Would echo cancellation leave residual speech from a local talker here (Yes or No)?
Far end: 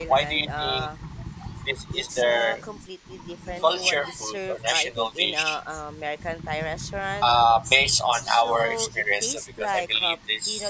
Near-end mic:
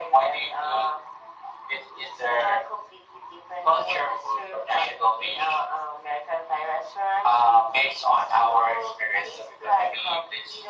No